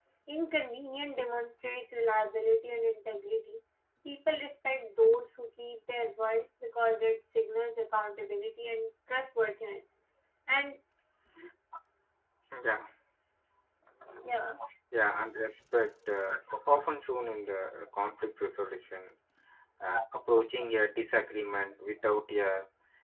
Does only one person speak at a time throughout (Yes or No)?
Yes